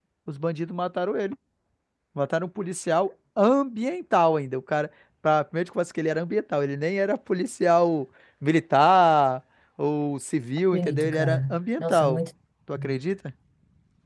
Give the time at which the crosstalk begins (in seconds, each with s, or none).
10.7 s